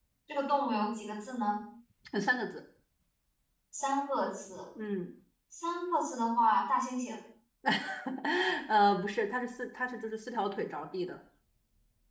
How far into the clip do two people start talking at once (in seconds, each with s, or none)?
none